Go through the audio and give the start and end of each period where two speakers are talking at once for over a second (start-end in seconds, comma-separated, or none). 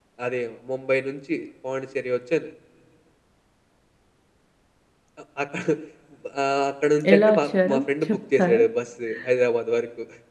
7.1-8.6